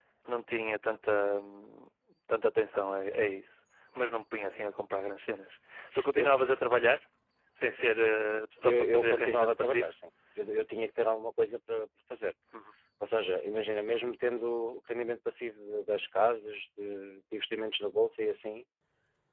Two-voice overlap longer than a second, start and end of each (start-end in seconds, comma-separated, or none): 8.6-9.9